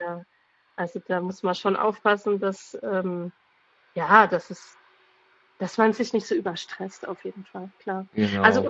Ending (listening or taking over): listening